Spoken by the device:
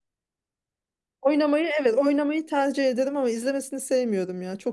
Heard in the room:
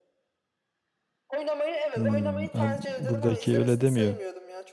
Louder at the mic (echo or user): user